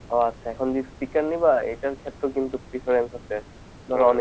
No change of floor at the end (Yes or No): Yes